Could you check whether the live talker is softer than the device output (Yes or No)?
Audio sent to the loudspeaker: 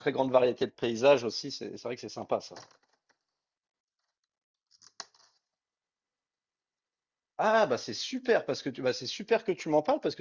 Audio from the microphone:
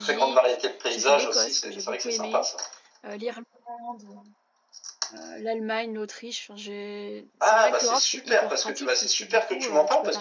Yes